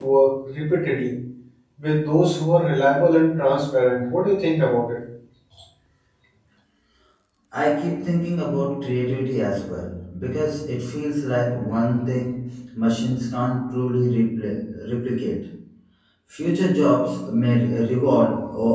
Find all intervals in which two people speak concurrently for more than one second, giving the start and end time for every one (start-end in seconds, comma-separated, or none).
none